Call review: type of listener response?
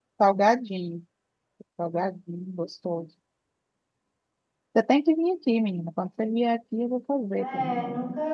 taking over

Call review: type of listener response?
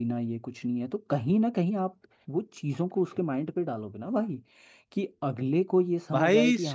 taking over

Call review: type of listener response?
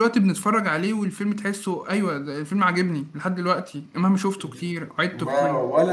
taking over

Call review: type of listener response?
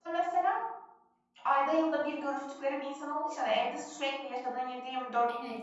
taking over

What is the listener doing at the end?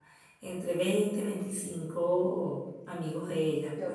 taking over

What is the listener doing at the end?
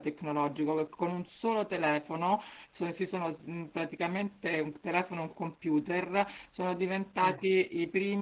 listening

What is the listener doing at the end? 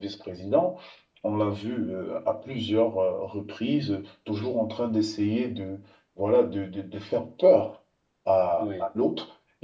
listening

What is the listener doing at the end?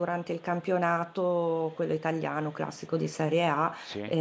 listening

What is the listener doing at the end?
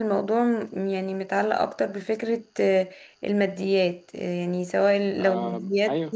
listening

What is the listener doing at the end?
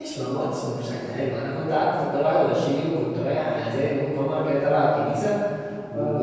listening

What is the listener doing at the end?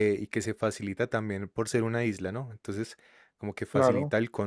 listening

